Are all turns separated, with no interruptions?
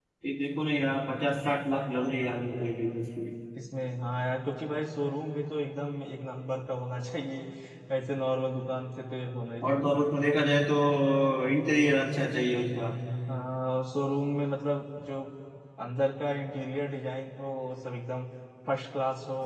Yes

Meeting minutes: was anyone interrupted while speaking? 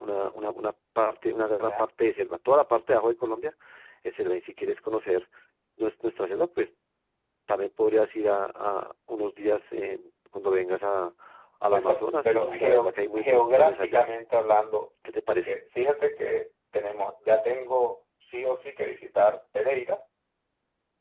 Yes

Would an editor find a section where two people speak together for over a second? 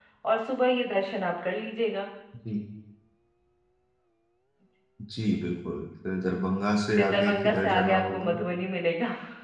Yes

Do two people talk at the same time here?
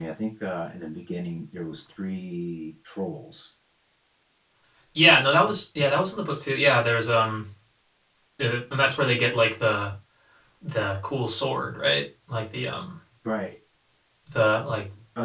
No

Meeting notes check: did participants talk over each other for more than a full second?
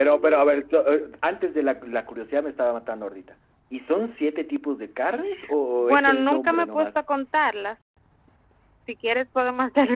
Yes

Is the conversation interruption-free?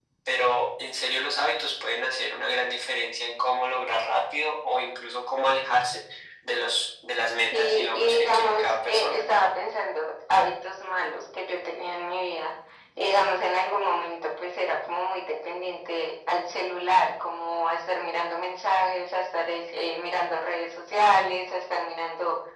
No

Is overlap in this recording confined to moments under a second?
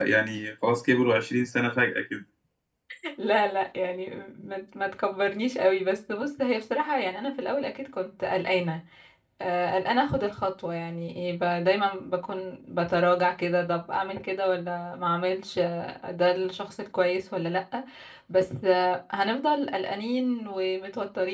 Yes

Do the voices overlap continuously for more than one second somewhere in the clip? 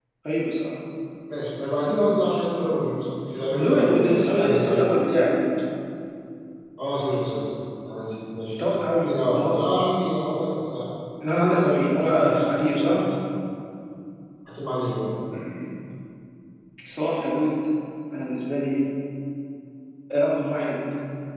Yes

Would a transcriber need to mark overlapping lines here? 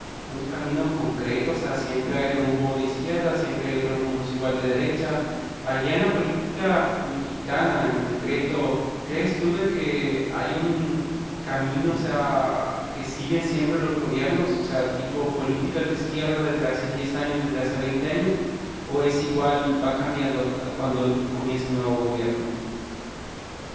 No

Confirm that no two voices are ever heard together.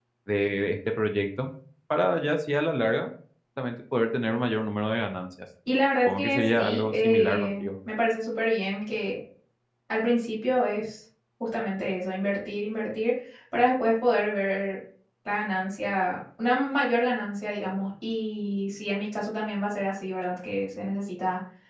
No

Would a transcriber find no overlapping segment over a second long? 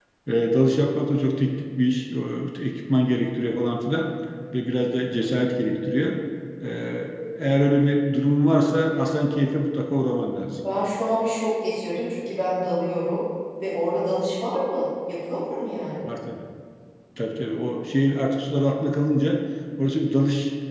Yes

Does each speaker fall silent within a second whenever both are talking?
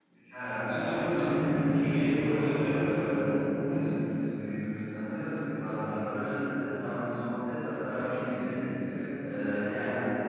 No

